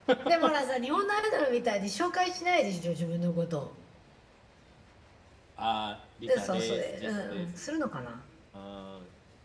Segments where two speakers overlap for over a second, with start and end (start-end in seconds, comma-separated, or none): 6.3-7.7